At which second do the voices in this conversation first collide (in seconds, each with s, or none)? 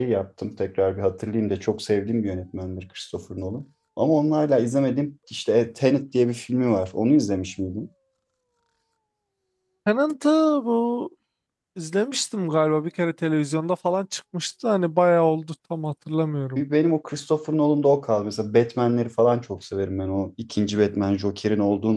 none